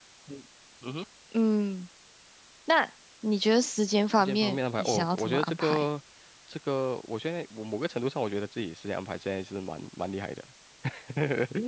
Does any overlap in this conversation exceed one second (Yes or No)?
Yes